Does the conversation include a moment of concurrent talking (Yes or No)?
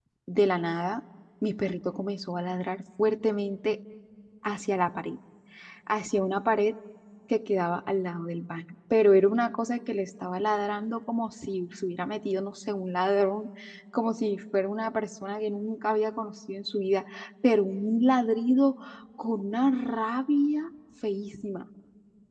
No